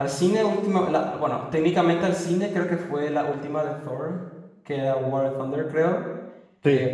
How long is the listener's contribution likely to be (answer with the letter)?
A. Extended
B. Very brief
B